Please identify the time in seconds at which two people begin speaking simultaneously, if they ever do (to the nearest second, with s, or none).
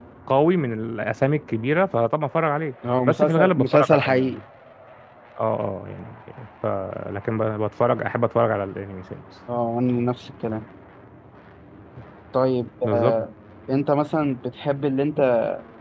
3 s